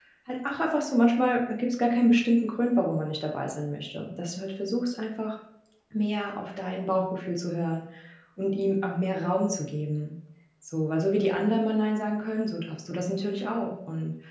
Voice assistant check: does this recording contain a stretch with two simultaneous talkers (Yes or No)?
No